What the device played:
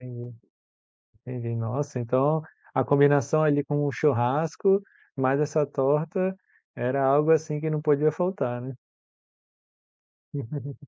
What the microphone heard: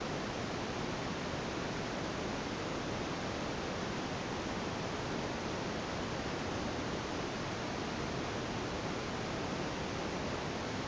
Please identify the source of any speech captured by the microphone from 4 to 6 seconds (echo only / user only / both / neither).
neither